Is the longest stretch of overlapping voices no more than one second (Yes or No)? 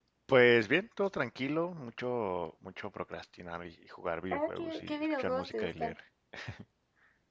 No